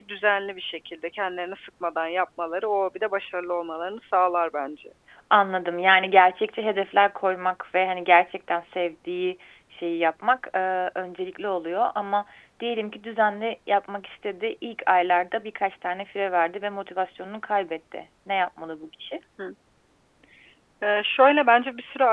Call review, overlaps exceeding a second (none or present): none